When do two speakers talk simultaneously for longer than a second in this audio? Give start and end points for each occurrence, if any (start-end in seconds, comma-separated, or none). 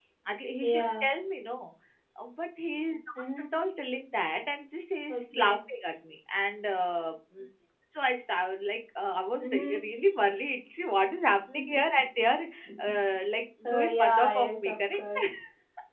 13.6-15.2